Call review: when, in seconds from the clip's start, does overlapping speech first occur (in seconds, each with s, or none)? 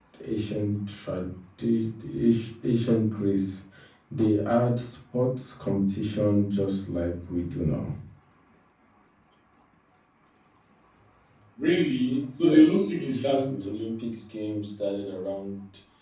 12.4 s